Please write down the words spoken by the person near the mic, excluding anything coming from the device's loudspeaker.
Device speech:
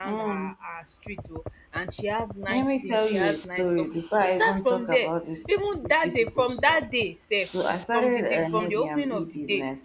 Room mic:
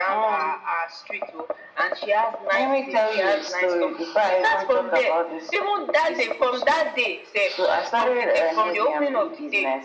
none

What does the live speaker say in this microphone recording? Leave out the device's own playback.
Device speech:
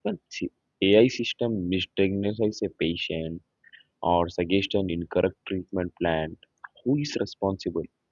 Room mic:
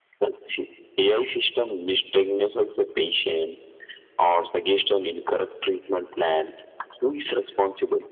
none

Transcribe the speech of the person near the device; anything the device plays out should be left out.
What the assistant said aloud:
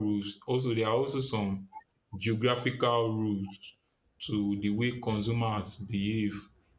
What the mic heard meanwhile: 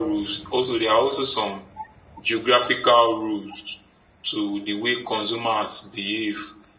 none

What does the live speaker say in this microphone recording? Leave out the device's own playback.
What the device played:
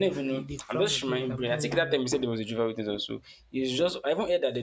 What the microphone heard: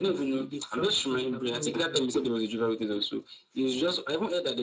none

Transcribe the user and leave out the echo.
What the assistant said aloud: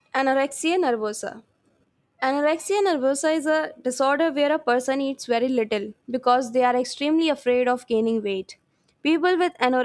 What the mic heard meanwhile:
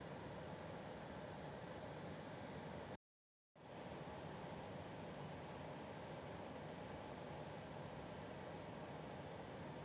none

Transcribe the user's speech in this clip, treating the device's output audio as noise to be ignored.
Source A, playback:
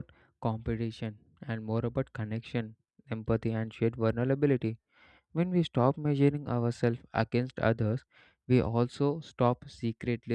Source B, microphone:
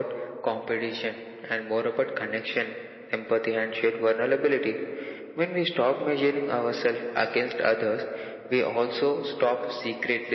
none

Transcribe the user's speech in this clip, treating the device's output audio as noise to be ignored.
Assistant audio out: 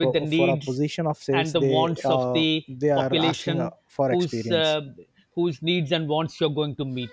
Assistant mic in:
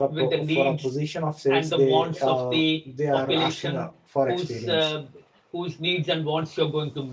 none

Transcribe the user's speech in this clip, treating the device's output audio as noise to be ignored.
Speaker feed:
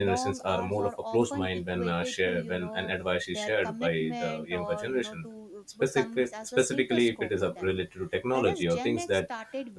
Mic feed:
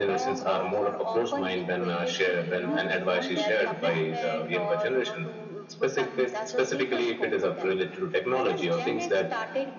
you know, respond to feedback.

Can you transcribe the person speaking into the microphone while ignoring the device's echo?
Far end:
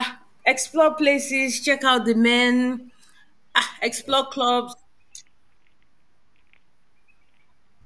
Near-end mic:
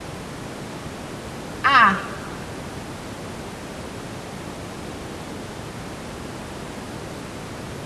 ah,

